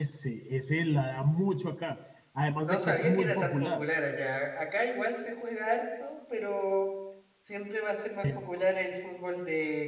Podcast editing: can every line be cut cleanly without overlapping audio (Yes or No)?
No